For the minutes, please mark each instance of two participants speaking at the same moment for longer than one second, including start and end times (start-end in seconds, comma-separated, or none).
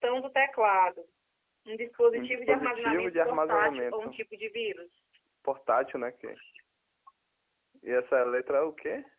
2.1-4.2